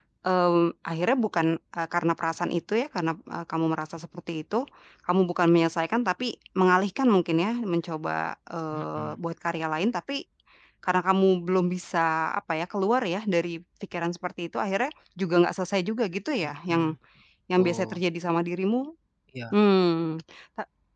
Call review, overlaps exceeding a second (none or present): none